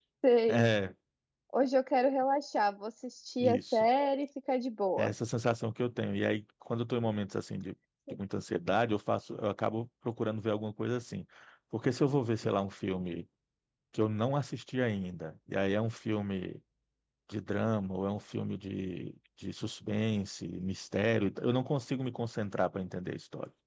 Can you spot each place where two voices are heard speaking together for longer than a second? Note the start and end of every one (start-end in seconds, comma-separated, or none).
none